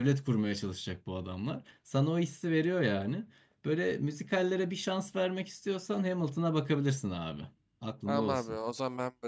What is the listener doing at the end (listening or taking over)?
taking over